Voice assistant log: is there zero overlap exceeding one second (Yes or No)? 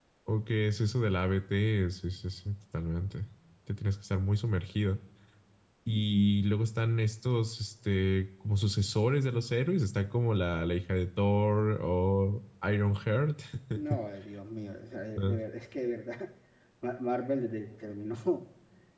Yes